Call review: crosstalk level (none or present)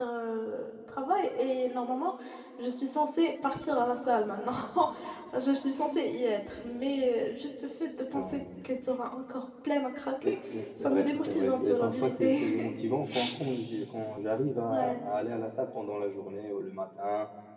present